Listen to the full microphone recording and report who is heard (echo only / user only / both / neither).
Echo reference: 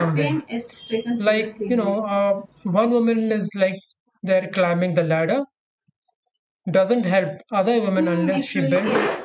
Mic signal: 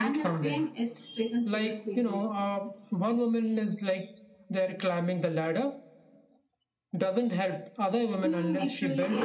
echo only